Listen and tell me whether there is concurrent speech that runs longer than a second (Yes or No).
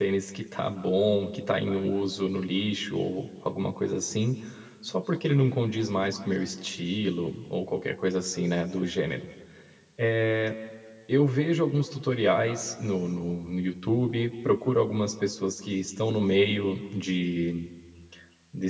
No